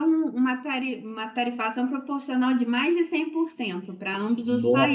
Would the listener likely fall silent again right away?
No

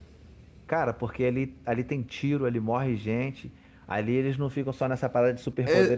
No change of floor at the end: No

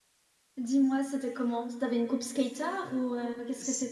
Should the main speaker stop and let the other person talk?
Yes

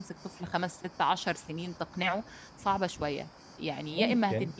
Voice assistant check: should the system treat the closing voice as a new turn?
No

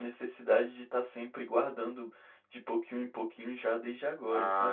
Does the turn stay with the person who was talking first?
No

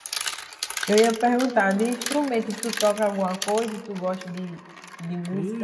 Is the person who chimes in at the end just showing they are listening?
No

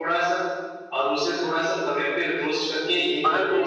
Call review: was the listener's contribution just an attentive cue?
Yes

